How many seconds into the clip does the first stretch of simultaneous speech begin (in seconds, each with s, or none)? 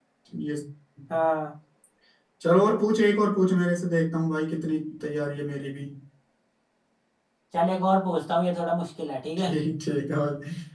none